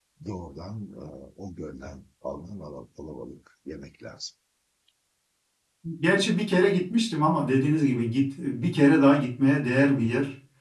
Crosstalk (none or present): none